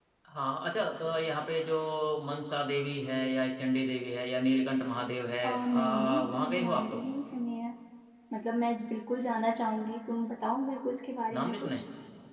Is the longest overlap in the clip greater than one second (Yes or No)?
Yes